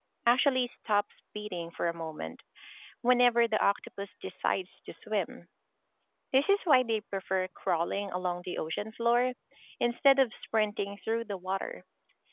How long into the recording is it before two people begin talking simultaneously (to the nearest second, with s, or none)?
none